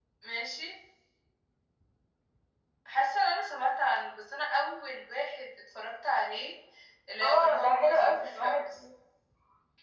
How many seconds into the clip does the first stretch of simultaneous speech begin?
7.2 s

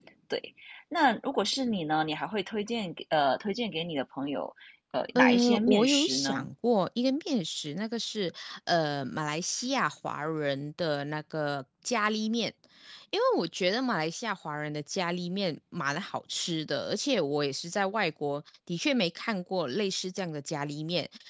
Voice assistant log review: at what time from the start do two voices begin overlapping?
5.2 s

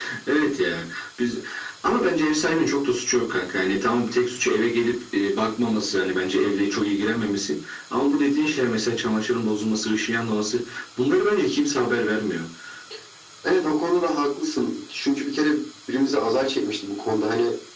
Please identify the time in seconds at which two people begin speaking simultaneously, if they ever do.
none

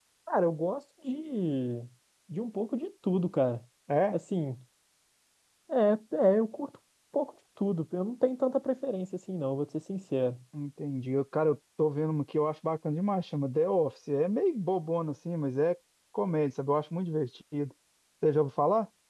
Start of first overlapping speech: none

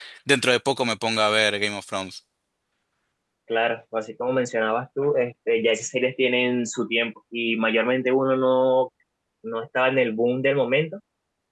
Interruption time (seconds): none

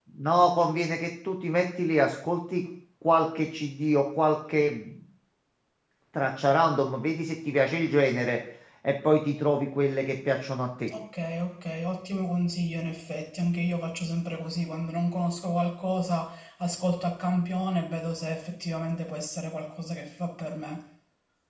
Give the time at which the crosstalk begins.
none

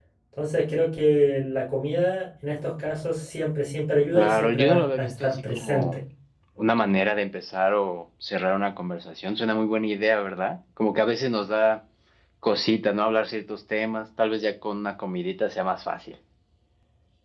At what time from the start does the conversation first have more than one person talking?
4.1 s

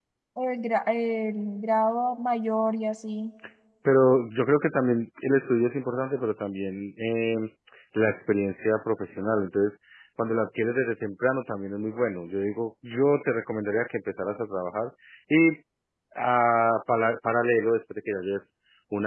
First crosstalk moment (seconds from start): none

